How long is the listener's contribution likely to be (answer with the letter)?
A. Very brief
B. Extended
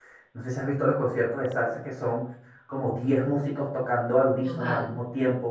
A